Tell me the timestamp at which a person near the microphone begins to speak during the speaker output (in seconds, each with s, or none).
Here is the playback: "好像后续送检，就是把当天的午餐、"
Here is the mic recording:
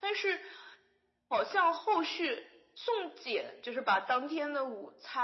none